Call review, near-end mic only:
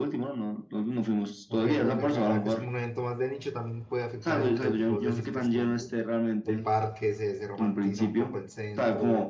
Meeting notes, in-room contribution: present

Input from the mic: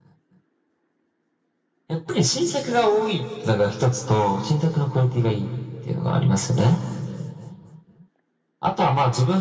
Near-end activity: none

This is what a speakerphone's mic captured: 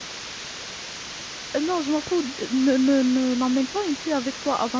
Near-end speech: present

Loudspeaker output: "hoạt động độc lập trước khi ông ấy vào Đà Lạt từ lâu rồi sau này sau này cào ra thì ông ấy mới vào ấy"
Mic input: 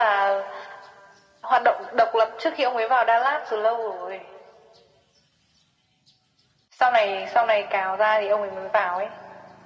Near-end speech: none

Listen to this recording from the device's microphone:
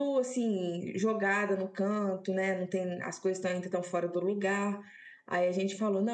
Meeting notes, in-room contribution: none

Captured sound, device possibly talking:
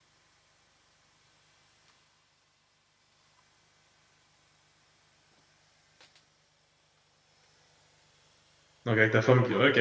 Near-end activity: present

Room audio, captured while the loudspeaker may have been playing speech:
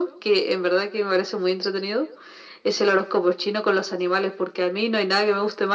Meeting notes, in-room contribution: none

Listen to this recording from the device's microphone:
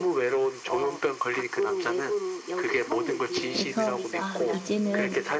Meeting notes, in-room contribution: present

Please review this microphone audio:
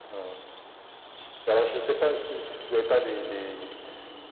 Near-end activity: none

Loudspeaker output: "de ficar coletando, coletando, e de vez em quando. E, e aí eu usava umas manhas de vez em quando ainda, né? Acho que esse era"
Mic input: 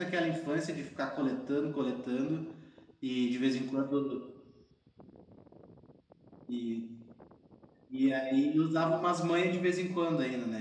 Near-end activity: none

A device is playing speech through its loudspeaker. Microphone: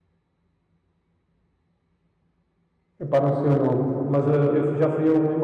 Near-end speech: present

